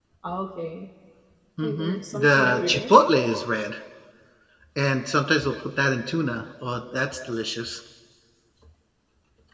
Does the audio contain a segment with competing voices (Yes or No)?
Yes